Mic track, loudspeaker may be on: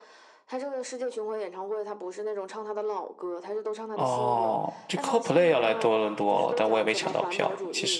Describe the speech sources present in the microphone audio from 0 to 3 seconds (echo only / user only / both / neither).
echo only